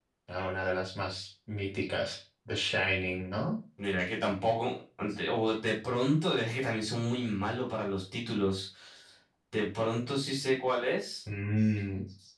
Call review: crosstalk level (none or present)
none